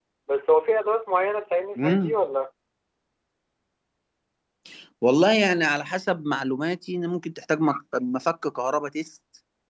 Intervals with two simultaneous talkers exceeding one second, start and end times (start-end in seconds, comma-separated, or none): none